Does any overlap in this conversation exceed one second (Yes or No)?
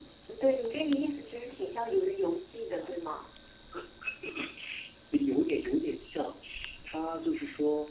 No